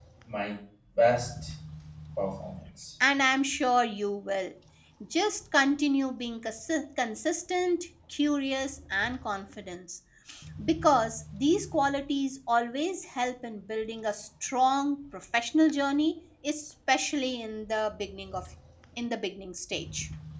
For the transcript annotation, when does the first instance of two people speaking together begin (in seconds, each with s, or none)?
none